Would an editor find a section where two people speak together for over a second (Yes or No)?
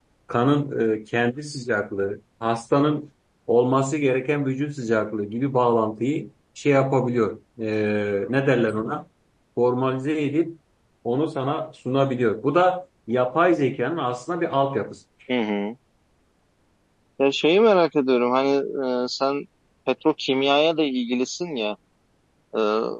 No